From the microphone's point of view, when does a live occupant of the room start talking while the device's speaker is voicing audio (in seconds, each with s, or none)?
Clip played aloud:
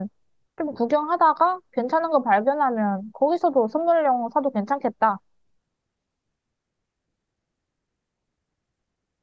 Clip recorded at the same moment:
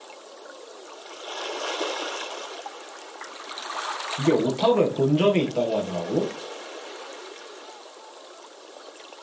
4.2 s